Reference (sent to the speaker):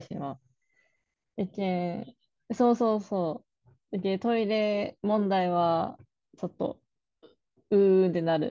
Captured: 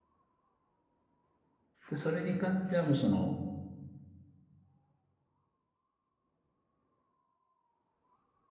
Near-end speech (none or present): present